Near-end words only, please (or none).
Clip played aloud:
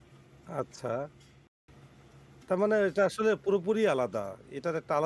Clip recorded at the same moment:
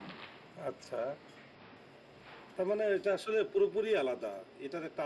none